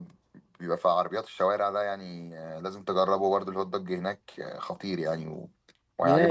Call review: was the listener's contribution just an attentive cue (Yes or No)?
No